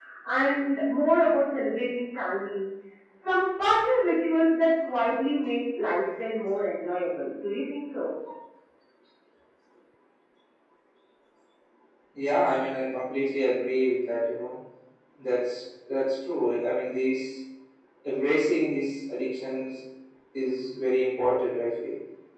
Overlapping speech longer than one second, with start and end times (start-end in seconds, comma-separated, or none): none